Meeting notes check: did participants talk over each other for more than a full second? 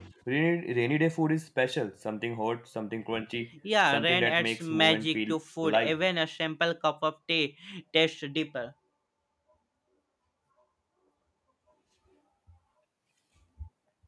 Yes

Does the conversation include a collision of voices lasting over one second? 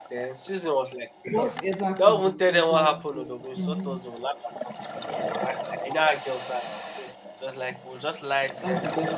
Yes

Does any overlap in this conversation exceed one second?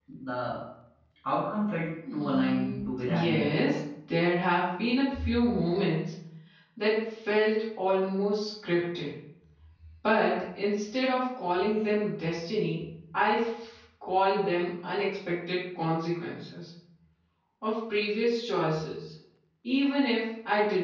Yes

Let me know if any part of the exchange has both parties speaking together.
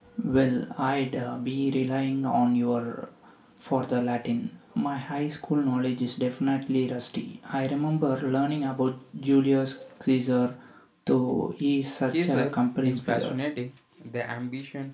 Yes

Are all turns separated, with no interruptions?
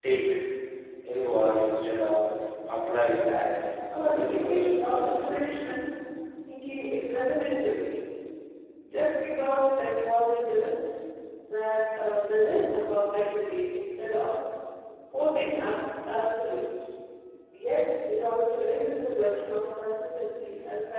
No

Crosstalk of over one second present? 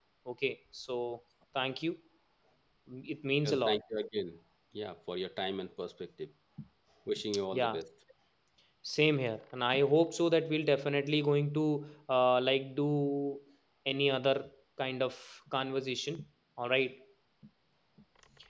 No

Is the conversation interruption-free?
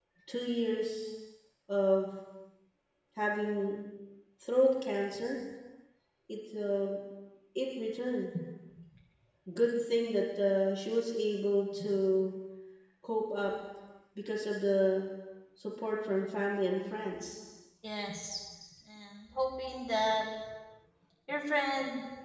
Yes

